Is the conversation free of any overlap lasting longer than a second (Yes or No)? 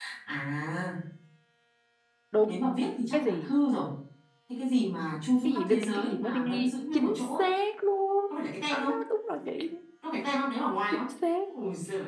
No